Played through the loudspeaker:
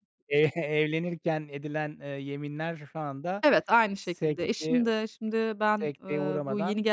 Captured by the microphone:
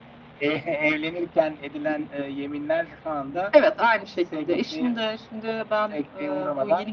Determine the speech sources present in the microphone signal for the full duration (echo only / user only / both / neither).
echo only